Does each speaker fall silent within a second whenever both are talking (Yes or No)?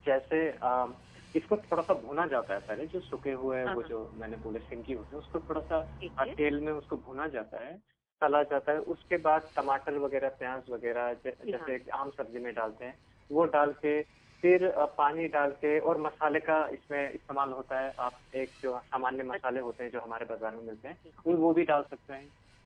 Yes